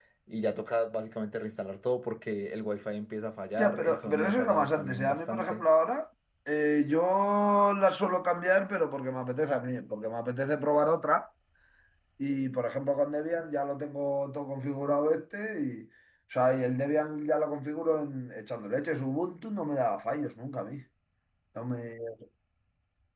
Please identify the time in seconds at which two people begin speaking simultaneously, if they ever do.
3.6 s

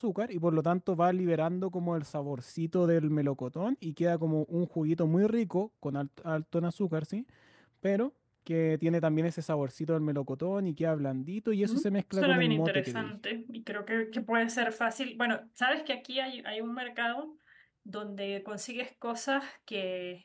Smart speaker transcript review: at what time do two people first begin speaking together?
11.6 s

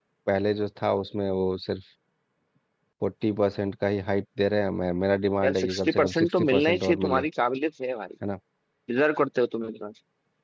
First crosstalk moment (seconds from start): 5.4 s

